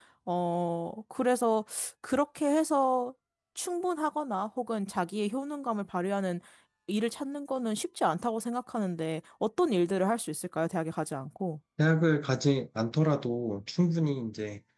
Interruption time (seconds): none

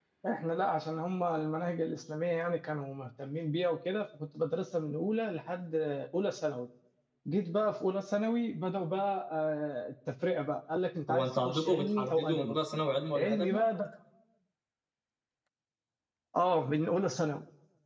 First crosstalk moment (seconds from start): 11.1 s

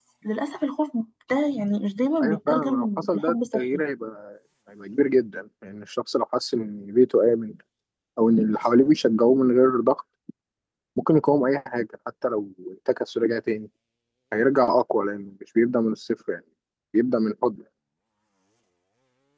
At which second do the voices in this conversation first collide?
2.2 s

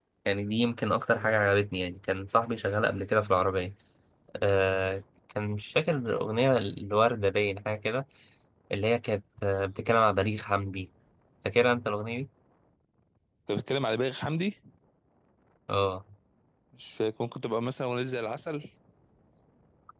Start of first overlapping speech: none

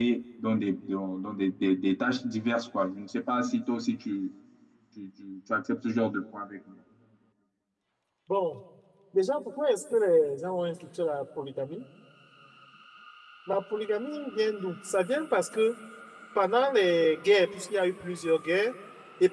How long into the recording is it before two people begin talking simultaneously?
none

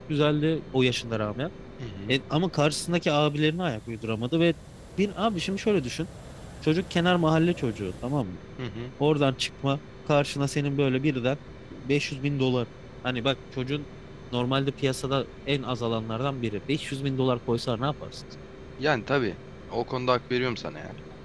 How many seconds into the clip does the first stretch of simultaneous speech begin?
none

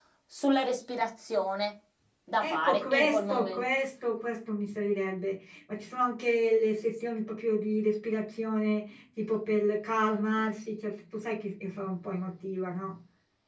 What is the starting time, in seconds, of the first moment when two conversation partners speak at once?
2.4 s

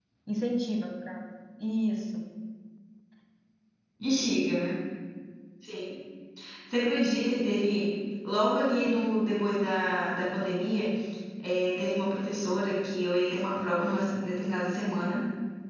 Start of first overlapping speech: none

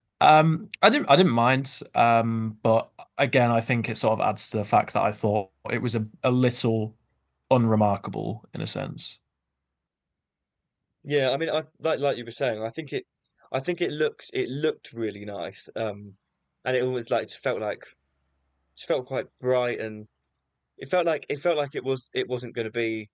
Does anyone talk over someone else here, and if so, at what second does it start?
none

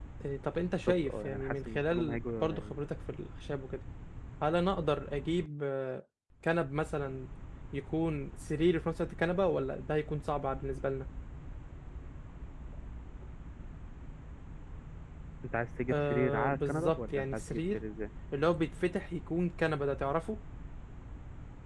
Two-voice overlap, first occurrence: 0.9 s

